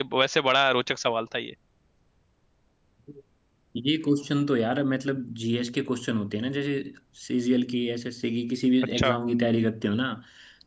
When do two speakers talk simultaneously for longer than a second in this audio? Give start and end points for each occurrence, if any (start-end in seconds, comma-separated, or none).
none